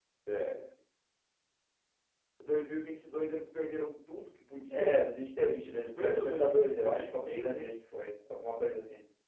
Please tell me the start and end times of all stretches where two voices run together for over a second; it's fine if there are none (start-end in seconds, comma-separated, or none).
4.7-7.7